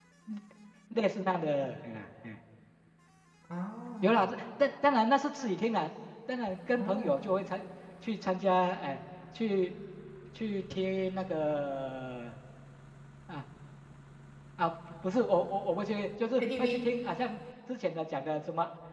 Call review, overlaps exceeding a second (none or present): none